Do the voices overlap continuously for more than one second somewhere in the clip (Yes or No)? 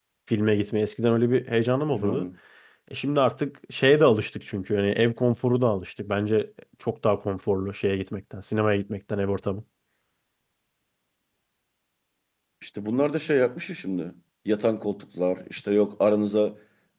No